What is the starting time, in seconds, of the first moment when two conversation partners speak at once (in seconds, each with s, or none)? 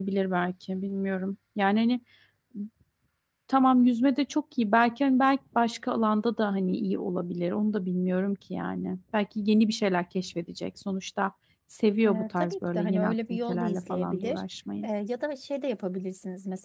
12.0 s